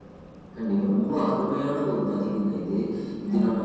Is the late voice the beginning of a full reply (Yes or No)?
No